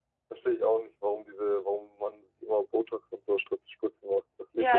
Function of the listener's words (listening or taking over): taking over